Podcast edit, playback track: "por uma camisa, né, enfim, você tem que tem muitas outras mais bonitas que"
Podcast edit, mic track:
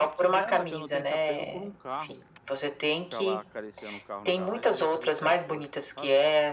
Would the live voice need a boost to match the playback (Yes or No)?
Yes